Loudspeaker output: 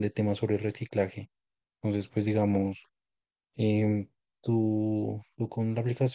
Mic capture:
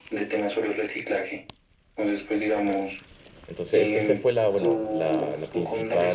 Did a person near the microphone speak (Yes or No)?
Yes